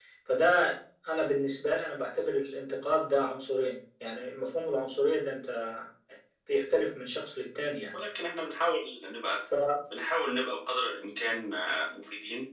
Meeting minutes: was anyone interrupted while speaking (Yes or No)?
No